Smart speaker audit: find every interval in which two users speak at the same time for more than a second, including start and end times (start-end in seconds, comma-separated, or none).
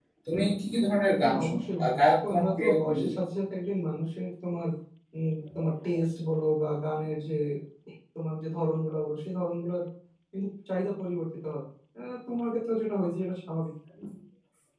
1.2-3.2